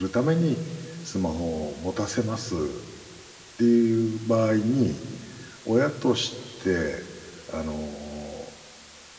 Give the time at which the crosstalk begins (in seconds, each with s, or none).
none